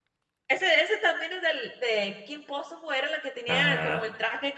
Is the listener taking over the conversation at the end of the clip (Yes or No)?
No